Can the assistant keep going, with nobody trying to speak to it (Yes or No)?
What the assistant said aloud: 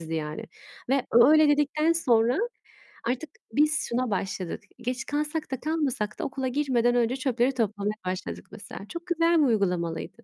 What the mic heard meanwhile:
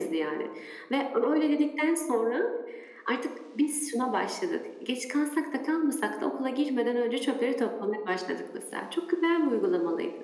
Yes